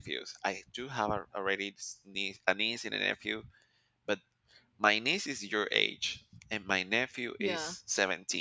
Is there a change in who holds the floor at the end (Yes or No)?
No